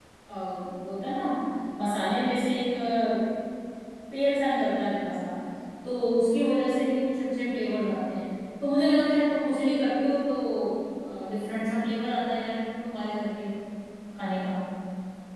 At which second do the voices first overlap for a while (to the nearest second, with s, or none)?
none